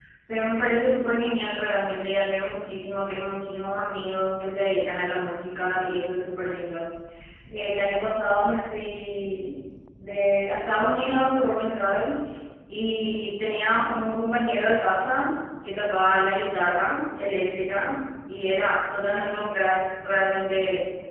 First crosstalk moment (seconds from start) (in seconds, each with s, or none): none